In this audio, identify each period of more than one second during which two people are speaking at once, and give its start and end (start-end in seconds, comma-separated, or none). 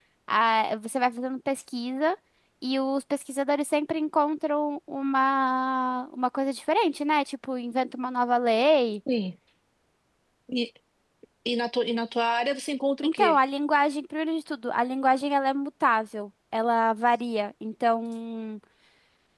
none